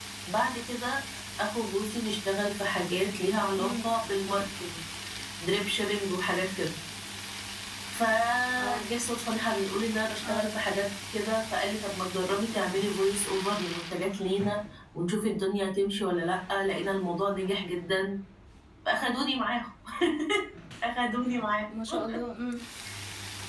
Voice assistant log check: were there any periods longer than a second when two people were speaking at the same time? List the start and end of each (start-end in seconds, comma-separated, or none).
none